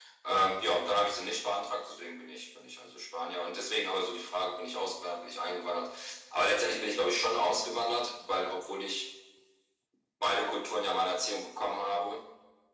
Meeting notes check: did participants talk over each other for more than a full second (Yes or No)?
No